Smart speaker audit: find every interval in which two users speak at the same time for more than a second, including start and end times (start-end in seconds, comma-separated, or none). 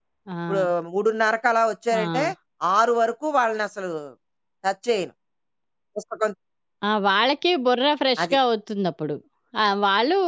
none